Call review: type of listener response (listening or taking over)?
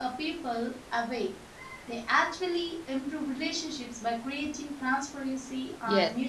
taking over